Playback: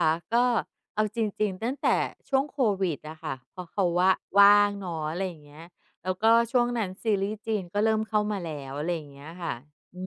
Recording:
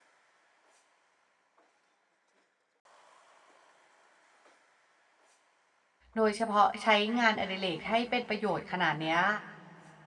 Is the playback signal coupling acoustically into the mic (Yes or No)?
No